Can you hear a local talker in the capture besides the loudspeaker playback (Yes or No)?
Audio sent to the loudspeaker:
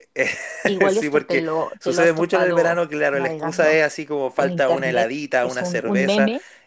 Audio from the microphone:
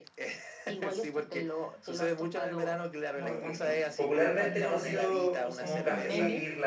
Yes